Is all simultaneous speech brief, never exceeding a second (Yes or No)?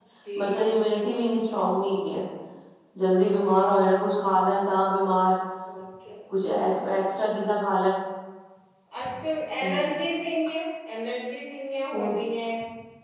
Yes